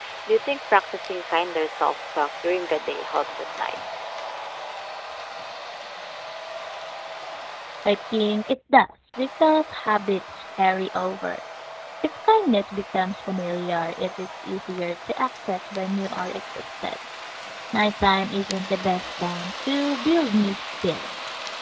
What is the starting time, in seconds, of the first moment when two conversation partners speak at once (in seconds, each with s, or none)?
none